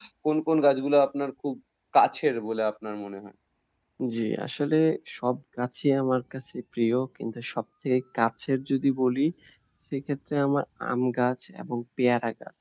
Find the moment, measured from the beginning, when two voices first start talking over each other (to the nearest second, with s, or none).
none